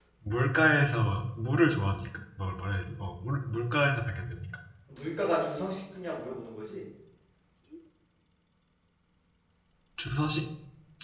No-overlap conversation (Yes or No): Yes